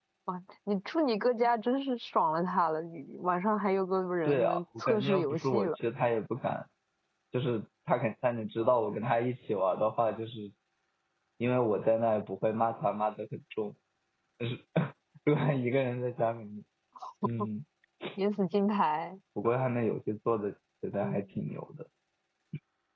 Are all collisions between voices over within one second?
No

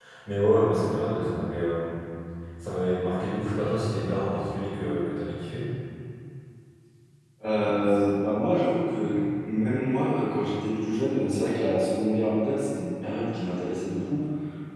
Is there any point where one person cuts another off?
No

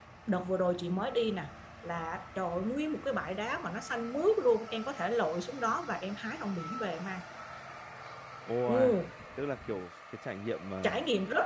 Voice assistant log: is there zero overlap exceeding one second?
Yes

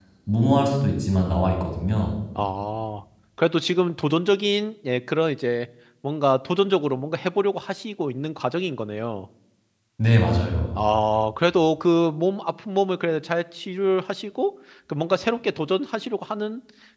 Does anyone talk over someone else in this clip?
No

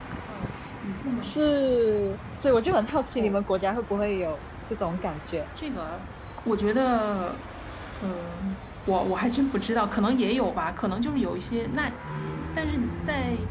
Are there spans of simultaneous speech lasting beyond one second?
No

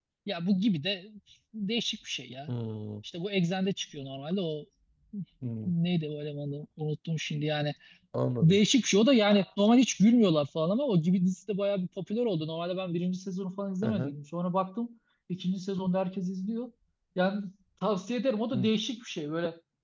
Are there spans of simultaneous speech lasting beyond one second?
No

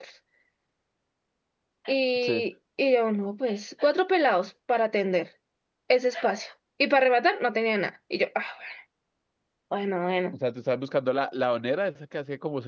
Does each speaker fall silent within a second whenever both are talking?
Yes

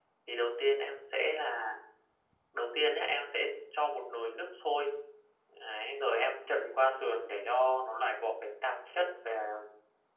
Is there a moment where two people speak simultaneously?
No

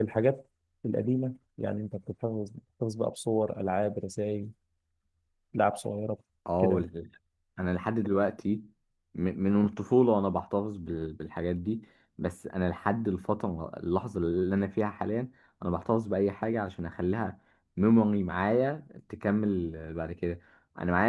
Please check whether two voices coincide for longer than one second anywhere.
No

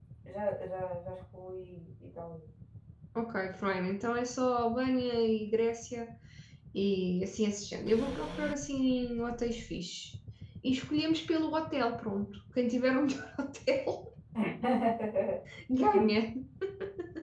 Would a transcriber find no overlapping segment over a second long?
Yes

